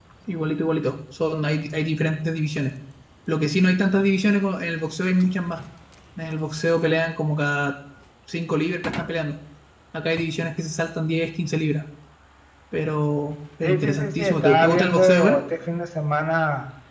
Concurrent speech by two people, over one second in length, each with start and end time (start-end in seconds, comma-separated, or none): 13.6-15.4